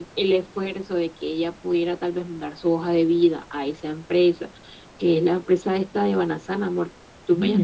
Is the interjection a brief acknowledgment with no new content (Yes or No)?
No